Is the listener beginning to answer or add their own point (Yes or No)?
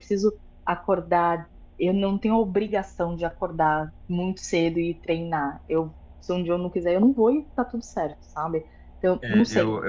Yes